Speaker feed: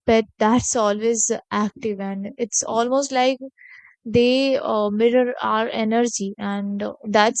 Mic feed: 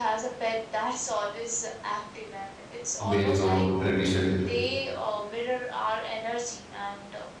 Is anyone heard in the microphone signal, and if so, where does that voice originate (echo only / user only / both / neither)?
both